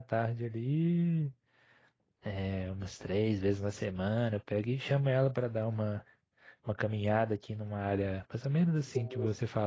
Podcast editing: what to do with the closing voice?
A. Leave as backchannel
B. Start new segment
A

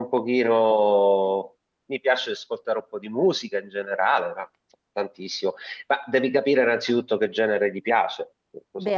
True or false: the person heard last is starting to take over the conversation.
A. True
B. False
A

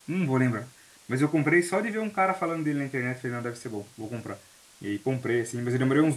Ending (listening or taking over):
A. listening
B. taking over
A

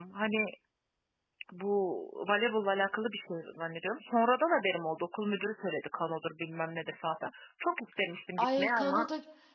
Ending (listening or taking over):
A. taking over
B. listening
A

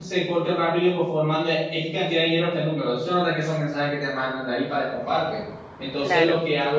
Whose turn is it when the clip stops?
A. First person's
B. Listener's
A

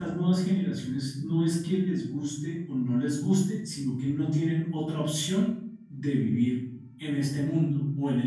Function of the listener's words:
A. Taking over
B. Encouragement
B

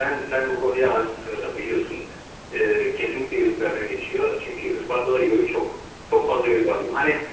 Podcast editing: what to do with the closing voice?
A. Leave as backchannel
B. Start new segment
A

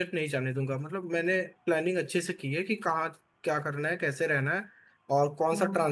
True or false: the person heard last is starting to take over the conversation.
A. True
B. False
B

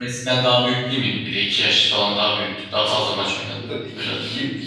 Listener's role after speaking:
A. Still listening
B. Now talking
B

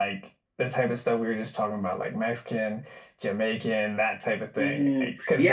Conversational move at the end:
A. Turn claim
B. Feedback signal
A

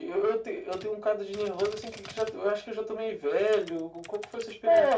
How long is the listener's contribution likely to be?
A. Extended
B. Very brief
A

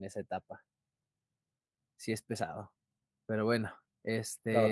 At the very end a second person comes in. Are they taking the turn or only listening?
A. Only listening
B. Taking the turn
B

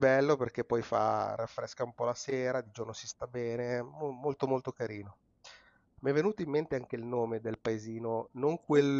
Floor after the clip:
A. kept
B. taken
A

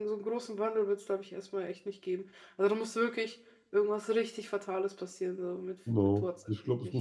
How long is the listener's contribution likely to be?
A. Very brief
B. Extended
B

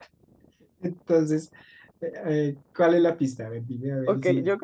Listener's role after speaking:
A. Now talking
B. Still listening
A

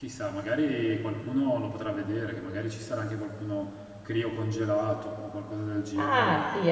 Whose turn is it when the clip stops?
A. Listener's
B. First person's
A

